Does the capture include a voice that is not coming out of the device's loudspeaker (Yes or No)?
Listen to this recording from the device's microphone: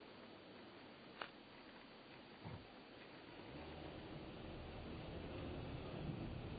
No